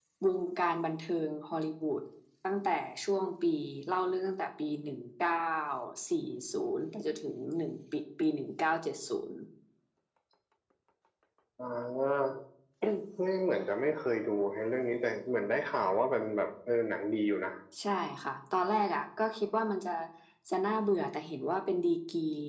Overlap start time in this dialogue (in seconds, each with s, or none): none